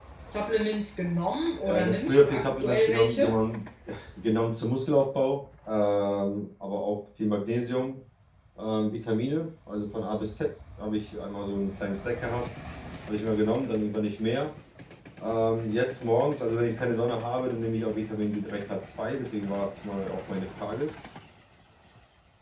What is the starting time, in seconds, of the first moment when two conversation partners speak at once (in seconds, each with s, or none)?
1.7 s